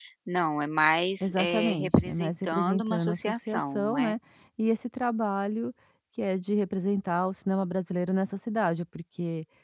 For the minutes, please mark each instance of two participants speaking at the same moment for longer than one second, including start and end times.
1.2-4.1

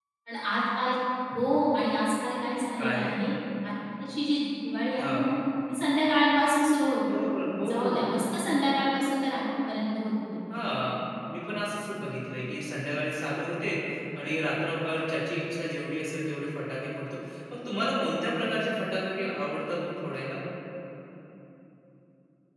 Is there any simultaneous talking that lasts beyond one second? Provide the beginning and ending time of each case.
none

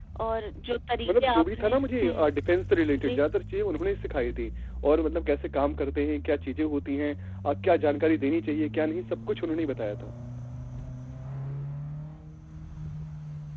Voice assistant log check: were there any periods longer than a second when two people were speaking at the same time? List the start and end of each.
1.1-2.3

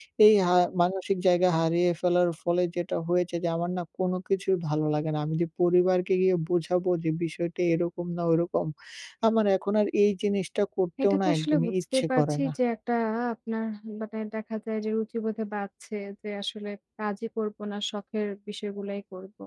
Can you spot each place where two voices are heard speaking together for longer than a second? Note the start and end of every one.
11.0-12.5

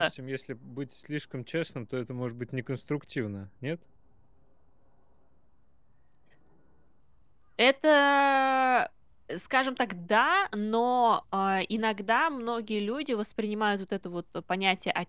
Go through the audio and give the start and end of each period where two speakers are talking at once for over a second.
none

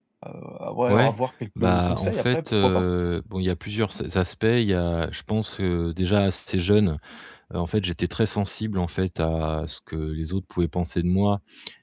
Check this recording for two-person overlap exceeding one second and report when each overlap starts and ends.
1.6-2.8

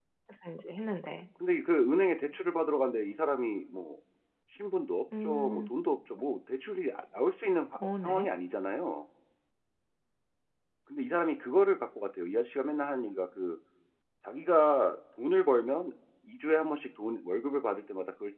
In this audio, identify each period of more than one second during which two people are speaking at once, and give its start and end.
none

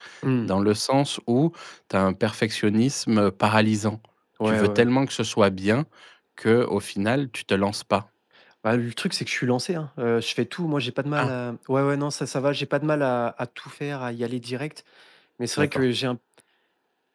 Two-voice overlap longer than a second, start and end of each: none

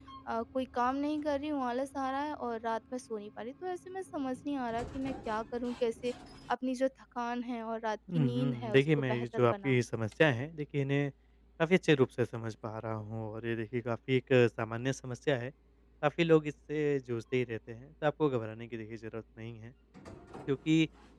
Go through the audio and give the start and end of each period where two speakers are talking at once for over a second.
8.1-9.8

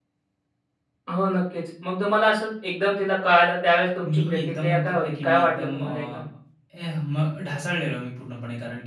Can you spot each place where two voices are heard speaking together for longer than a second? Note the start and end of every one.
4.0-6.2

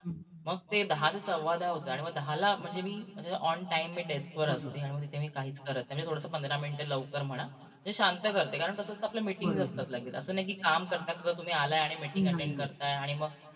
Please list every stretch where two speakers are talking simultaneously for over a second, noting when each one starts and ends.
none

